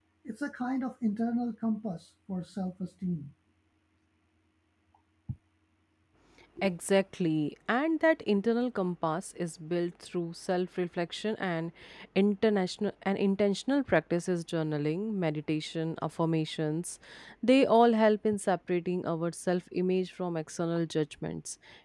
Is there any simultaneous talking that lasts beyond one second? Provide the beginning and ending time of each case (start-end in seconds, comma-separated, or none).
none